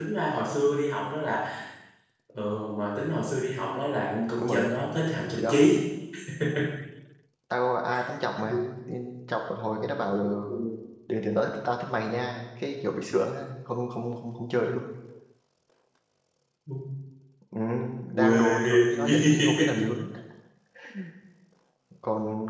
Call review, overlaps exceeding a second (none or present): present